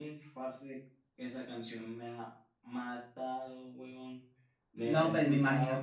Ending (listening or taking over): taking over